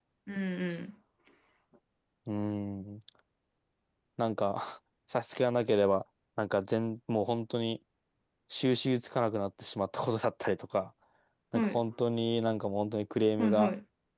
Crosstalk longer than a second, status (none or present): none